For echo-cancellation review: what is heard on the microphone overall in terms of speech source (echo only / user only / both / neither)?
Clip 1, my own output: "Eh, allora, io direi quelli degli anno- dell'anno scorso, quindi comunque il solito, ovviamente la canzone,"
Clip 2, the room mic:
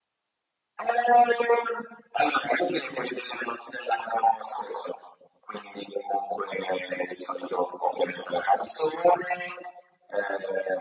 echo only